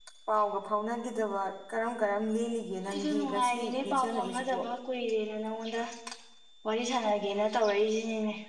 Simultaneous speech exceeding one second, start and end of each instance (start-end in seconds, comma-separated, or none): 2.9-4.6